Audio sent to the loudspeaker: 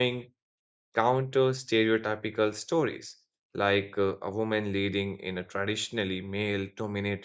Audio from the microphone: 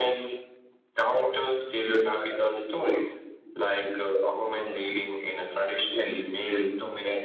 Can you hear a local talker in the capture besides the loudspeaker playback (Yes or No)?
No